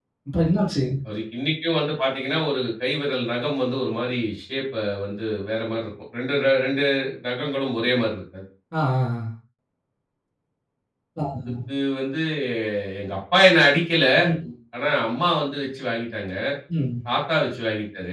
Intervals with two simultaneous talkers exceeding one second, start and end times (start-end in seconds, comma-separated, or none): none